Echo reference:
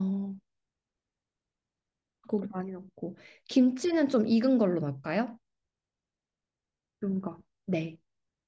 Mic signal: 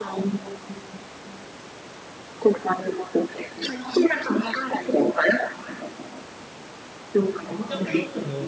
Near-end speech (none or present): present